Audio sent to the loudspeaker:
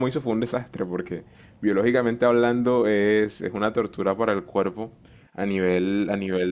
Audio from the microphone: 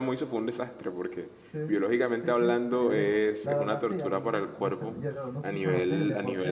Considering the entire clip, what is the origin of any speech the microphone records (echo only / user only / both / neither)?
both